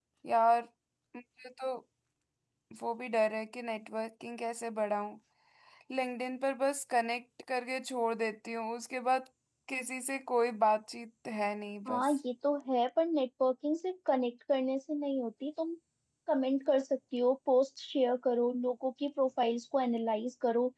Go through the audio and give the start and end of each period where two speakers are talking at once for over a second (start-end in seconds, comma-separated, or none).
none